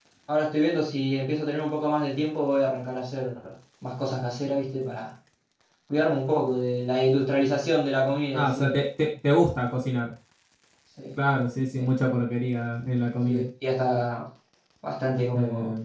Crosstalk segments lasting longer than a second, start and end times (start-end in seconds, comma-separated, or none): none